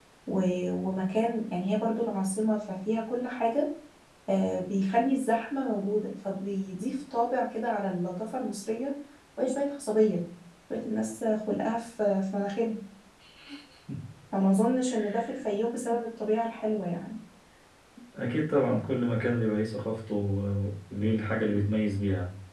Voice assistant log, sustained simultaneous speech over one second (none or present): none